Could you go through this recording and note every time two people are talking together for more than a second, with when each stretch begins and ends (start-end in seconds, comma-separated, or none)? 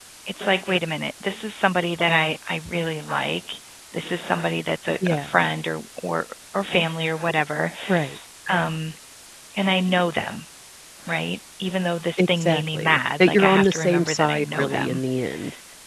12.2-15.0